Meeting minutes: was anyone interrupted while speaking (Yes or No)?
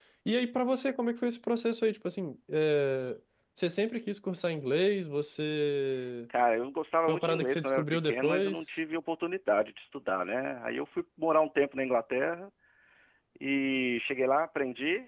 Yes